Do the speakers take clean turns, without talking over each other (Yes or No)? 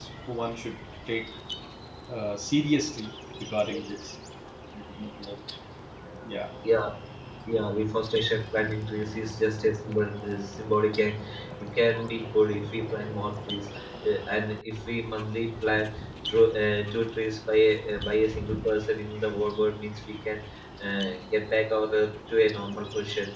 Yes